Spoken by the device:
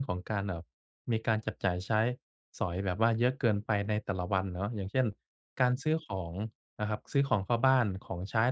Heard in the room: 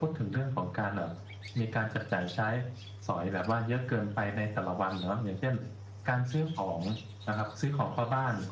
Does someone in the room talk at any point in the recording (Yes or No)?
No